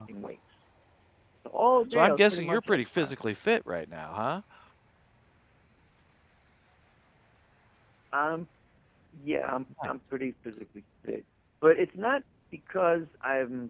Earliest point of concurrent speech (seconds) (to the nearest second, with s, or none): 2 s